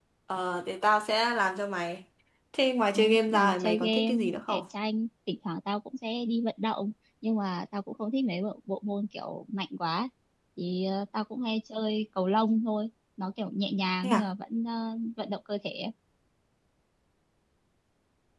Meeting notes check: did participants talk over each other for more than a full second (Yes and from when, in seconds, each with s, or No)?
Yes, from 3.0 s